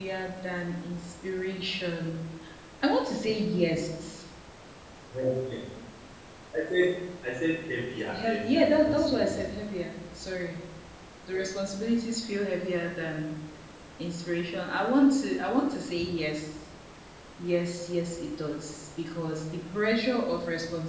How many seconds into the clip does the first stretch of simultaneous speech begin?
8.1 s

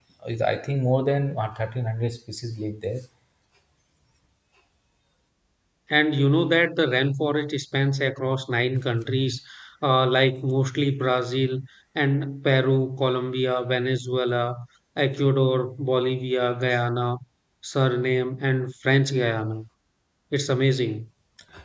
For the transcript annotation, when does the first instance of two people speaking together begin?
none

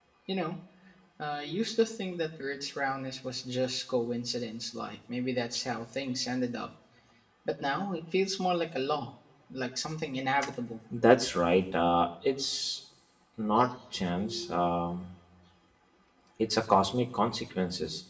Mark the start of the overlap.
none

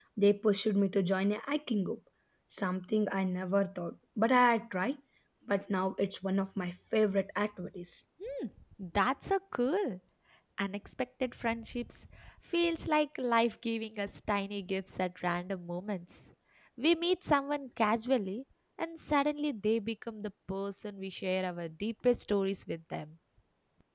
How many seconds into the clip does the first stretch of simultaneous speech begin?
none

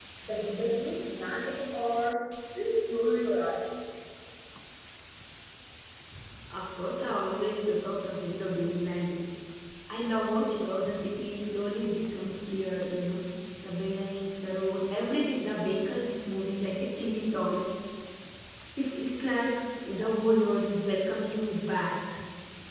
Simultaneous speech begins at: none

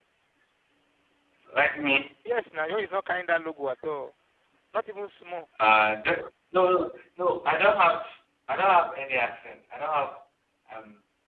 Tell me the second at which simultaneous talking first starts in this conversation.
none

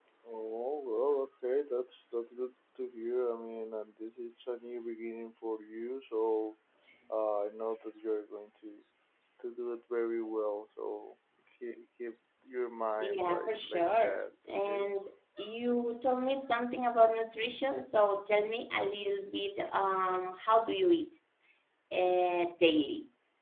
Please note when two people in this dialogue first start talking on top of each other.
13.0 s

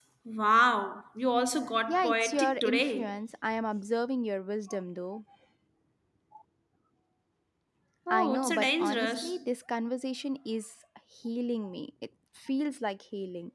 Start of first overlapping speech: 1.9 s

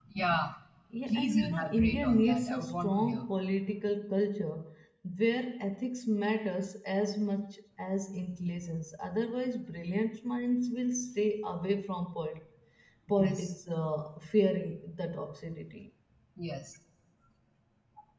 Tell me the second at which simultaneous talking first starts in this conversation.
1.1 s

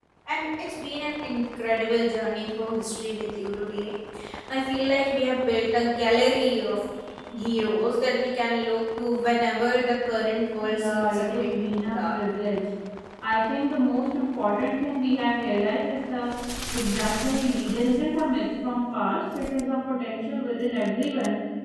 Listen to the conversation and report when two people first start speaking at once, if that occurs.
10.6 s

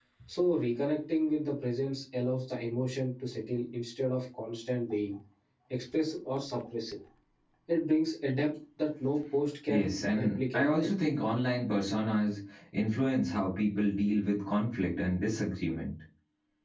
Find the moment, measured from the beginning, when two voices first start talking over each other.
9.7 s

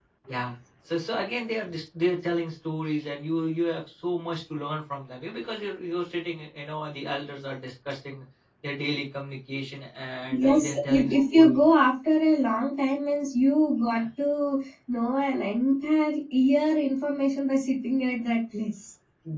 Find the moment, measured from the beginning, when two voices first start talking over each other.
10.3 s

